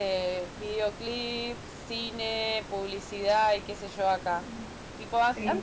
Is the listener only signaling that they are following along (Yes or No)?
Yes